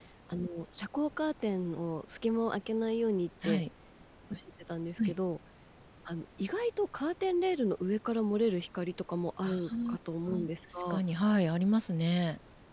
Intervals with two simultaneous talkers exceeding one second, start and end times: none

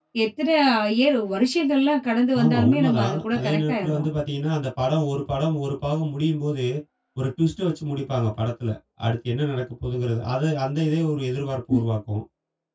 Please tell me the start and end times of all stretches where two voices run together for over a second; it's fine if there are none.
2.4-4.1

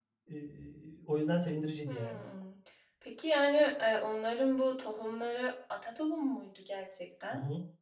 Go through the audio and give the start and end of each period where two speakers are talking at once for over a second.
none

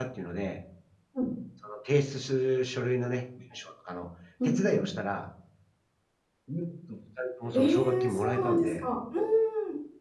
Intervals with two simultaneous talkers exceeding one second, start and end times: 7.5-8.9

